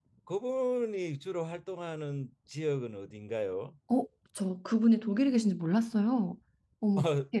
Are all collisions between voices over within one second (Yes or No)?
Yes